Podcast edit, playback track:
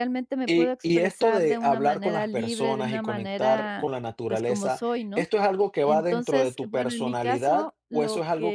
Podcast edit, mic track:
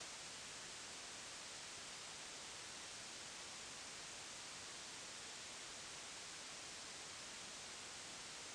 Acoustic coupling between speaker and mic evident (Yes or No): No